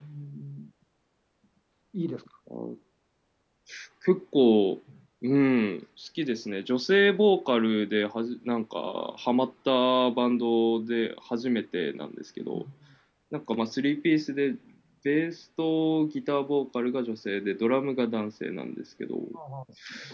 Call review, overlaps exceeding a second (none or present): none